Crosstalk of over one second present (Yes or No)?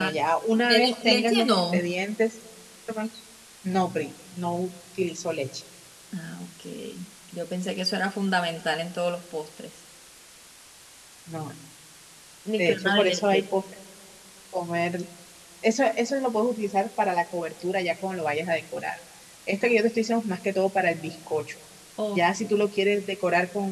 Yes